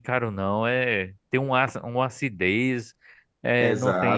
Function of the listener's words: taking over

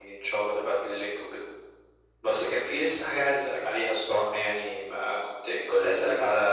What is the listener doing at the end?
listening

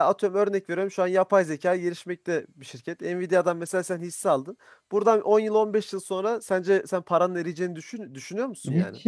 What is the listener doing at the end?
taking over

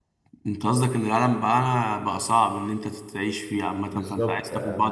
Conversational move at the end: taking over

